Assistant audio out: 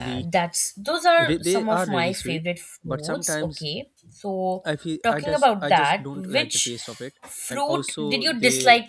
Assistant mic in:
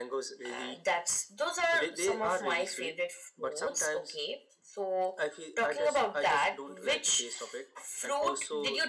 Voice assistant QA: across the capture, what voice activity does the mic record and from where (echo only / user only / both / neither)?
echo only